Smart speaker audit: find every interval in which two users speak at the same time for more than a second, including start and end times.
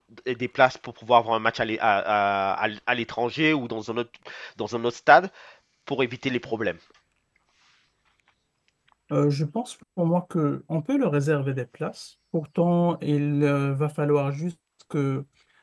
none

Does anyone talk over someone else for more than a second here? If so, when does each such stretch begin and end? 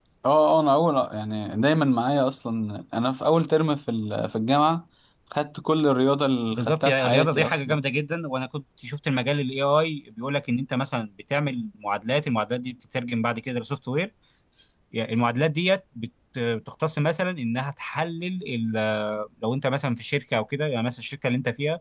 6.5-7.8

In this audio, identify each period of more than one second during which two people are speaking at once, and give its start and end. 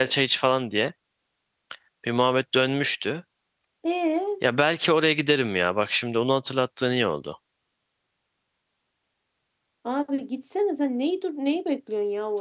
none

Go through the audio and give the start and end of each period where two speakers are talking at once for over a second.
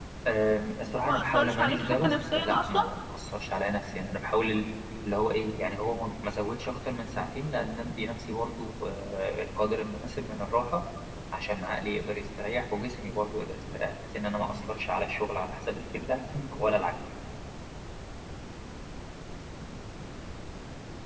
1.0-2.8

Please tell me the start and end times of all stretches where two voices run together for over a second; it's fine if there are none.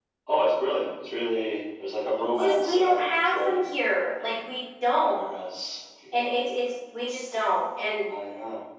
2.1-3.7

